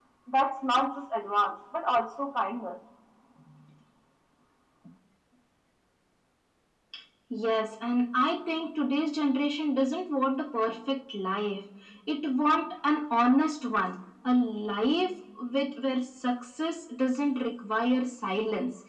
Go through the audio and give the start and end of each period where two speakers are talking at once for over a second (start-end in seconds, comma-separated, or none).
none